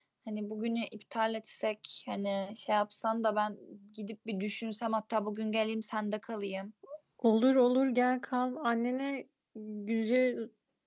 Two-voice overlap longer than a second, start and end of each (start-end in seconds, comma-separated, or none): none